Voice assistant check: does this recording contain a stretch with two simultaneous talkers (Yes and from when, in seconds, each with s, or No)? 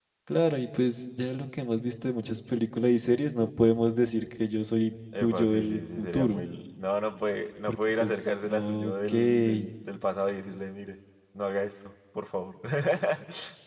Yes, from 5.2 s